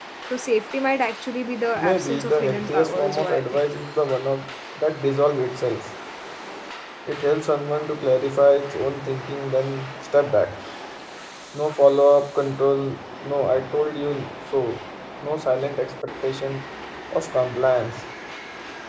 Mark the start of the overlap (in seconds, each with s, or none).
1.8 s